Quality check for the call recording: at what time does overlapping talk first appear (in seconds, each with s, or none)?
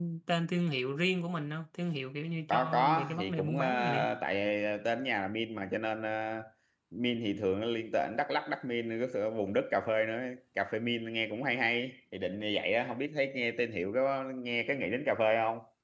2.5 s